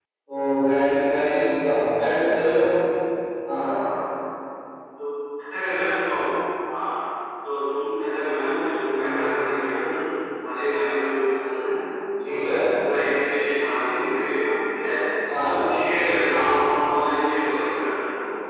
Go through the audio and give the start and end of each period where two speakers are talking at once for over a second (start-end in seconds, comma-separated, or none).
none